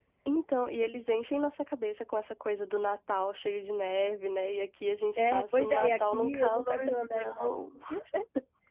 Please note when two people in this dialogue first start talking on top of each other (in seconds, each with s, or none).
5.2 s